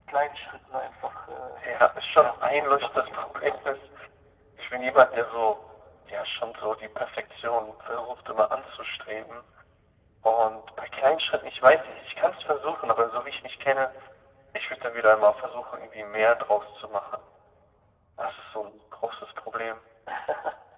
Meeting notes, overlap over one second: present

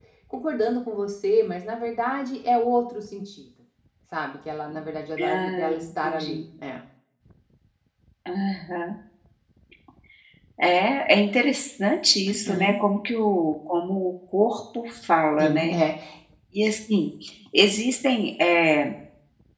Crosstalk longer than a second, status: present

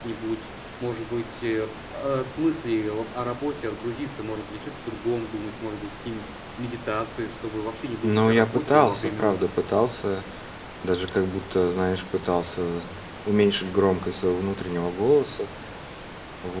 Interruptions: present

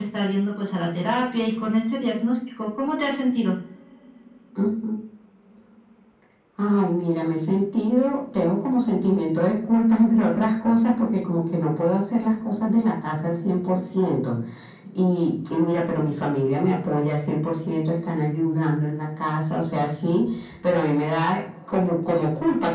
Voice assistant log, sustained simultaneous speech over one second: none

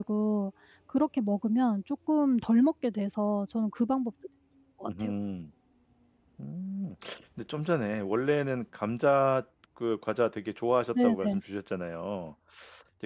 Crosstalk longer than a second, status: none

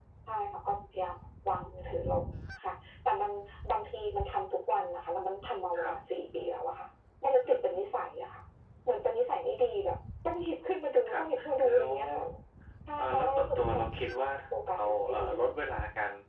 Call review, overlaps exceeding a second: present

